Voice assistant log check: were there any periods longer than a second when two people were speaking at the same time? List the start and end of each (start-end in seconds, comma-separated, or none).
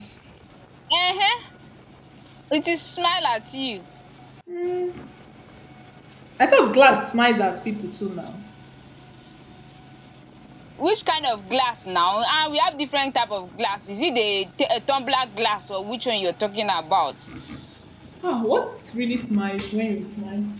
none